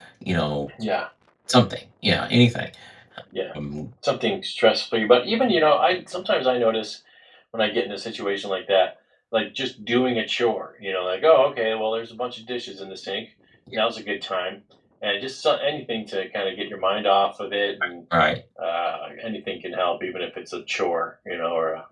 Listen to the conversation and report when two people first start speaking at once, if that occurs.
none

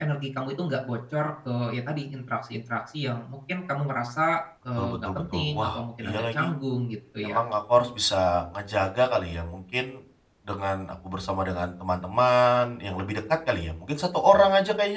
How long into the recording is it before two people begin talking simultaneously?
4.8 s

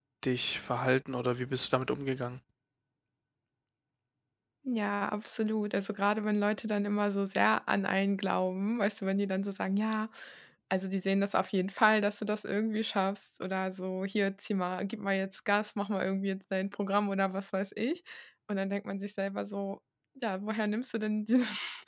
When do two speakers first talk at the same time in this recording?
none

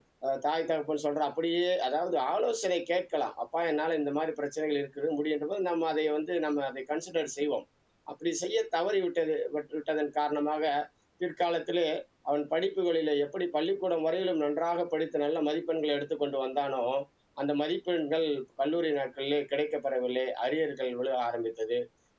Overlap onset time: none

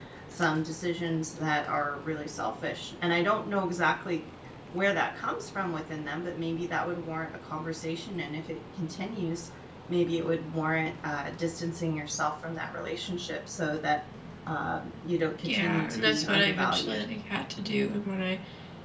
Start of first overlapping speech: 15.4 s

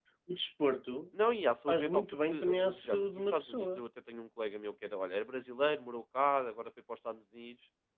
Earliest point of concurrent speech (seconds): 1.7 s

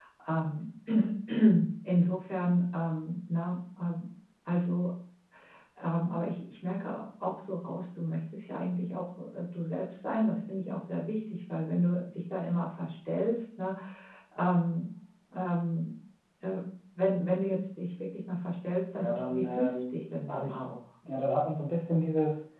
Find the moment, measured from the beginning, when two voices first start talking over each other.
19.0 s

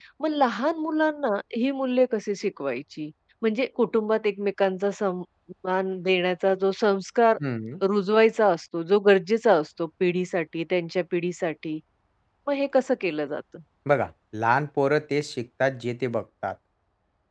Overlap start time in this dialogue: none

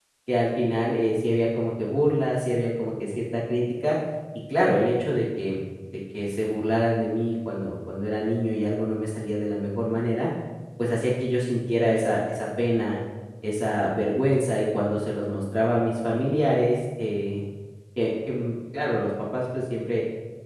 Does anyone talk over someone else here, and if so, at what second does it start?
none

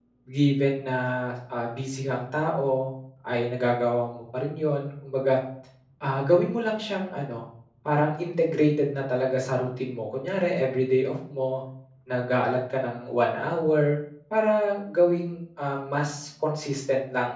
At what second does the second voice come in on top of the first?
none

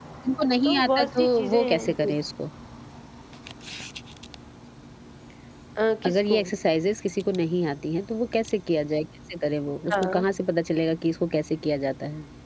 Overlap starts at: 0.6 s

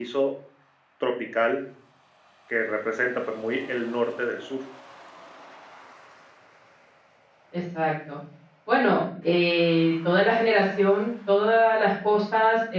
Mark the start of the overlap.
none

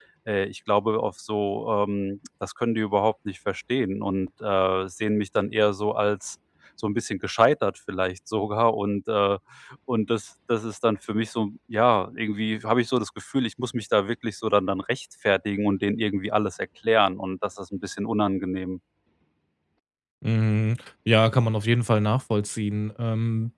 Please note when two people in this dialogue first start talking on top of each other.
none

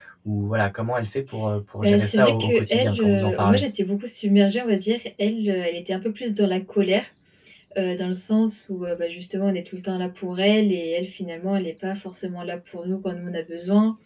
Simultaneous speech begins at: 1.8 s

